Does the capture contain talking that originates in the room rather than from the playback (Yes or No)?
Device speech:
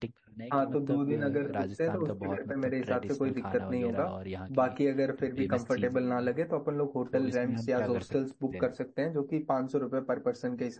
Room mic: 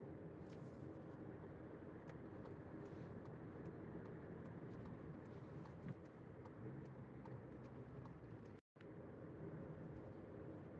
No